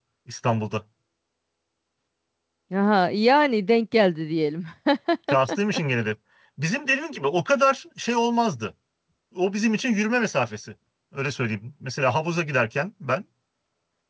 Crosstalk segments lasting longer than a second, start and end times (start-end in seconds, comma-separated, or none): none